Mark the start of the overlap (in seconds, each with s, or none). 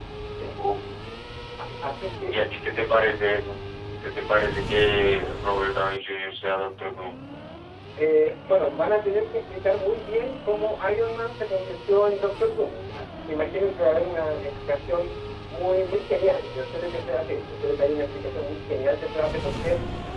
none